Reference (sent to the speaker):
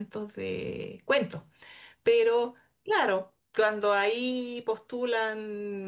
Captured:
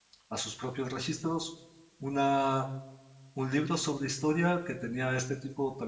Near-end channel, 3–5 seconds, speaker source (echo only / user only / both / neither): user only